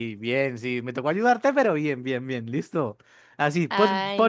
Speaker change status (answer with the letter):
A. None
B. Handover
A